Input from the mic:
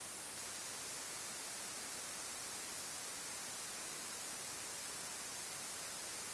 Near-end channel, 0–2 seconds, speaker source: neither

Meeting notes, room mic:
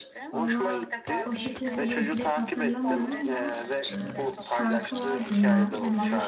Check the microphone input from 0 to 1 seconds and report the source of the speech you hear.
both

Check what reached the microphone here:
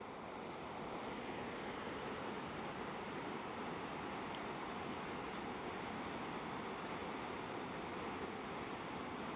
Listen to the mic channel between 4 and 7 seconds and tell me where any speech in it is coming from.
neither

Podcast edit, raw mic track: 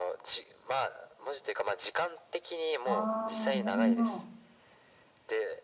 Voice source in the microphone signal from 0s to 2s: echo only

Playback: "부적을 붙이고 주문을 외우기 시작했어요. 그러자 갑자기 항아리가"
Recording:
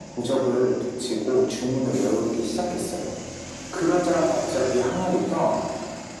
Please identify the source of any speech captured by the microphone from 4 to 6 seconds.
echo only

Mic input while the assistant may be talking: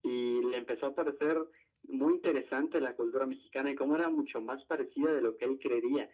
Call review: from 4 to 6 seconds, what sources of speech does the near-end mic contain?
echo only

